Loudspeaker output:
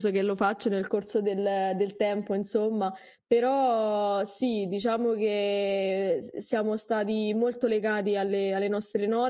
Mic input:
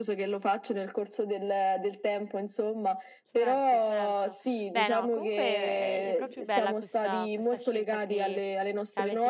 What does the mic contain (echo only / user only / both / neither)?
both